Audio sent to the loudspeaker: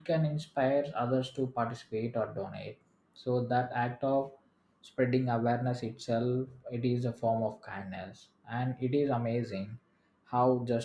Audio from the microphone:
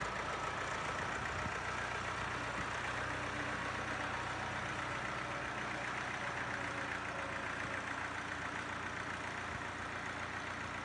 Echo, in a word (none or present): none